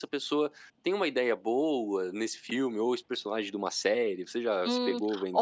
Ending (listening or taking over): taking over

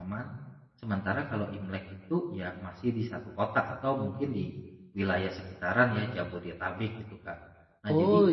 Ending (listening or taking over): taking over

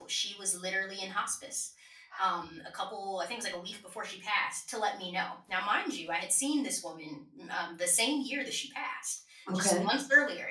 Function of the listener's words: listening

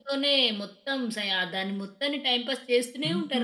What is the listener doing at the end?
taking over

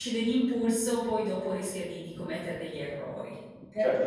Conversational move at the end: taking over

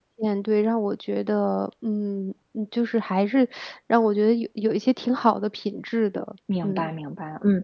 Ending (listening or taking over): taking over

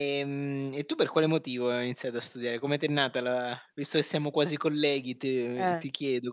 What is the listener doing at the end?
listening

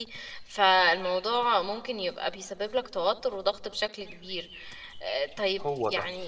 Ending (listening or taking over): listening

